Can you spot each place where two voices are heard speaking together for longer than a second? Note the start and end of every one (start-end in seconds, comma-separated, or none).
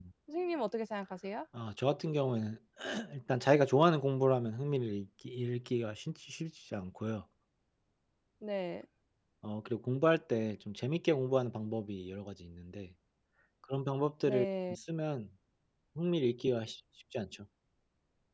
none